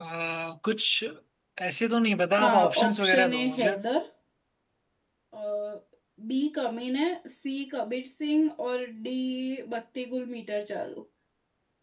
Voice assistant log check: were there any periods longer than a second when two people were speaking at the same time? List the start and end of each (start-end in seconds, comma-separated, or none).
2.4-3.7